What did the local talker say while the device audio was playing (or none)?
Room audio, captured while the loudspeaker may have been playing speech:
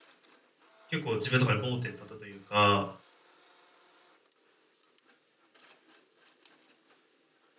結構自分の中で盲点だったというか、